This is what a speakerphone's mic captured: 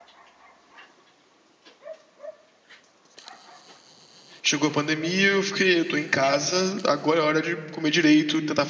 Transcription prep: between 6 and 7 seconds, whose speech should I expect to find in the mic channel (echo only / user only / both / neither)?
user only